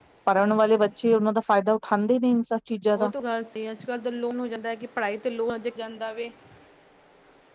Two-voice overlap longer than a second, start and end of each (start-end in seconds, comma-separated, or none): none